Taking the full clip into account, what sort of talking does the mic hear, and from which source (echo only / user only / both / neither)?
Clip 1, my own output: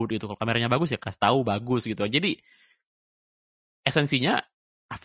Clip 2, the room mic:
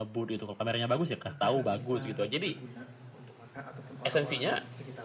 both